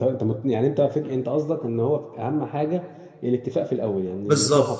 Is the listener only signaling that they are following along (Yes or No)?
No